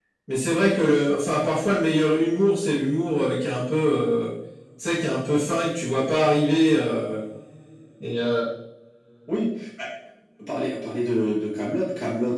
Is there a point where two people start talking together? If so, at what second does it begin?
none

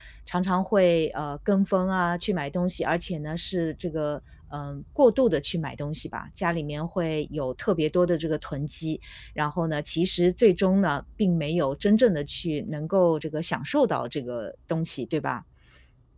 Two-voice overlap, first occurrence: none

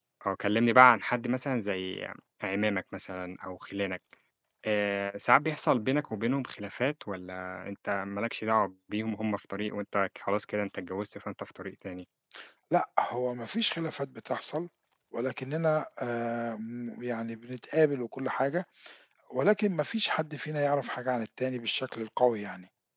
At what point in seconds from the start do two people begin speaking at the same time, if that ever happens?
none

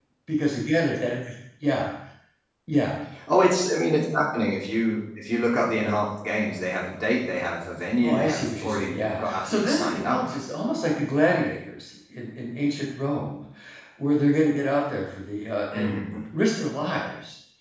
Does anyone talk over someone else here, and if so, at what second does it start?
8 s

